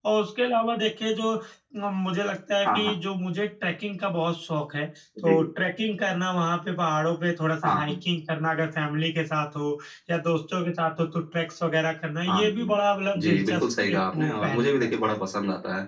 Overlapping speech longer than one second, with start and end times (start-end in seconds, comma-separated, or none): 13.2-15.2